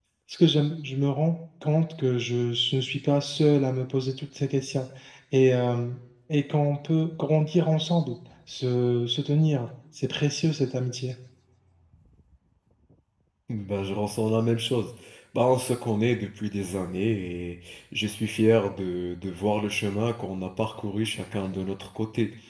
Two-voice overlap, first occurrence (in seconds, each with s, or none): none